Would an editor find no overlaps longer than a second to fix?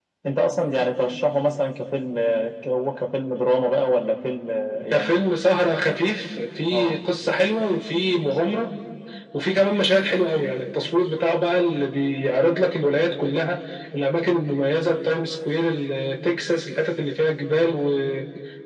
Yes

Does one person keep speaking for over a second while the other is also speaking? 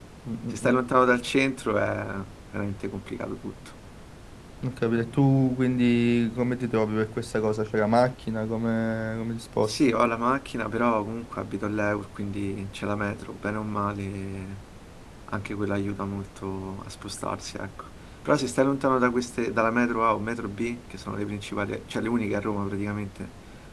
No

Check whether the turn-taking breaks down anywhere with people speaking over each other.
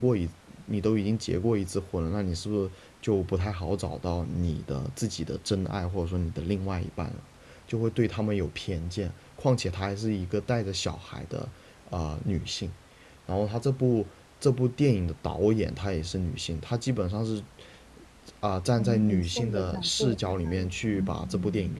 Yes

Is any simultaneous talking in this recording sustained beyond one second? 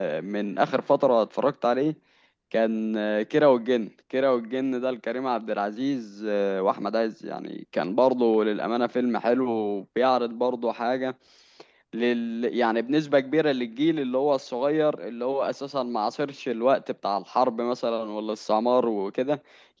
No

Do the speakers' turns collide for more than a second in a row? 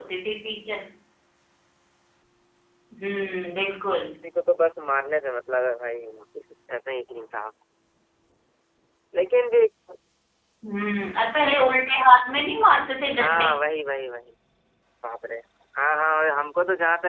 No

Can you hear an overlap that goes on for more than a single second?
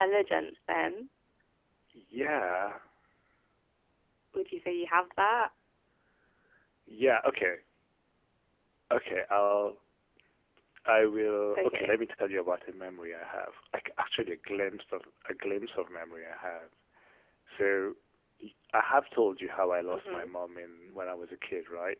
No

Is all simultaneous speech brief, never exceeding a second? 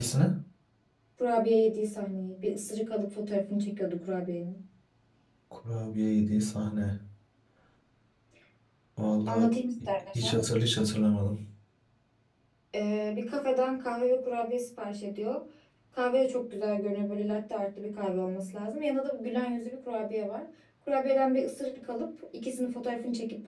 Yes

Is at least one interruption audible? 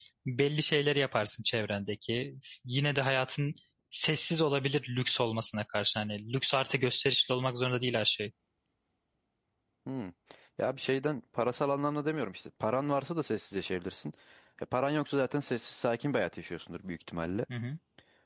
No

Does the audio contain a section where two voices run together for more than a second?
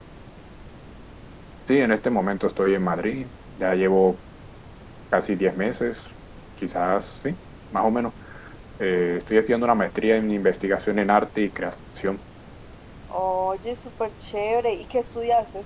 No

